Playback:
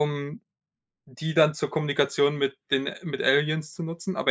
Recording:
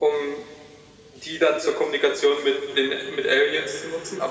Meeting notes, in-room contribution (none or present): none